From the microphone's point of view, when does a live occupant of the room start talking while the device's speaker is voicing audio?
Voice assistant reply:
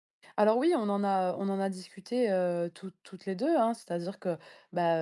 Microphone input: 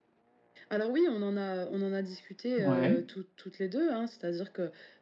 2.6 s

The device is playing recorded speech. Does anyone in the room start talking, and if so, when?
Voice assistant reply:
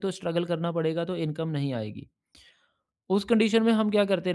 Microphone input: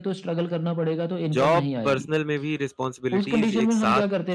1.3 s

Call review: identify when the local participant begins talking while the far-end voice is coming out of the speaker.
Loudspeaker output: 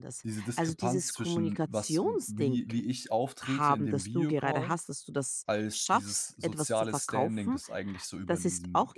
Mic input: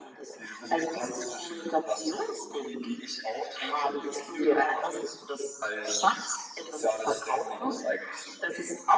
none

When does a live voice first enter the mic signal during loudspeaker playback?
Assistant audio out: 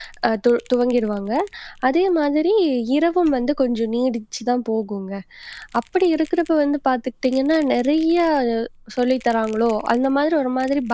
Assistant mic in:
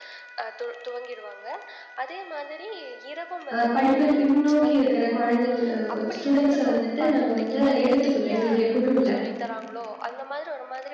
3.6 s

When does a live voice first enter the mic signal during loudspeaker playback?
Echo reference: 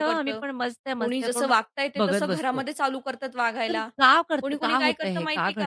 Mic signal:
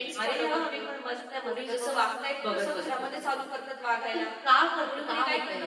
none

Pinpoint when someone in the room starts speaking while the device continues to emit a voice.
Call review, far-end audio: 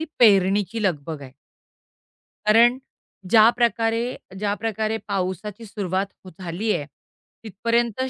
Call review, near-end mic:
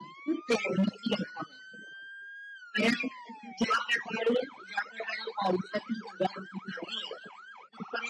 none

